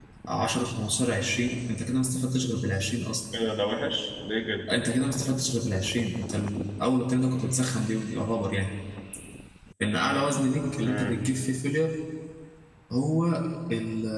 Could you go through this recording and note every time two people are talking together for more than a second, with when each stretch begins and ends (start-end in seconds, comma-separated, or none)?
none